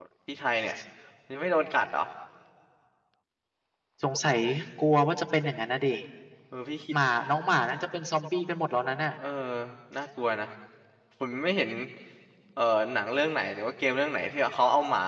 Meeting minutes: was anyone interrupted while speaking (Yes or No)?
No